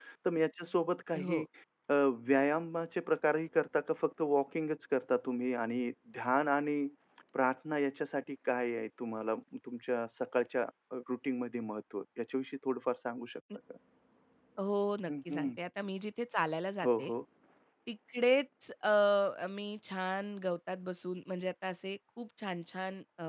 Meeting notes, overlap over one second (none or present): none